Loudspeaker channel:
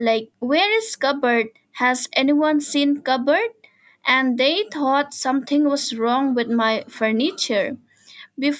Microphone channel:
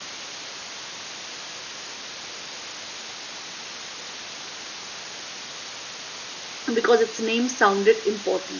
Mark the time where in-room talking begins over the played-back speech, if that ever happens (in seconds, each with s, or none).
6.7 s